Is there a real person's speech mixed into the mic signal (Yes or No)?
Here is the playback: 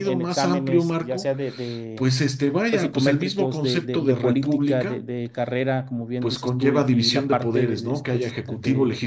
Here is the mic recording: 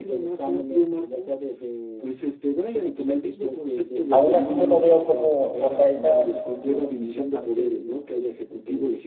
Yes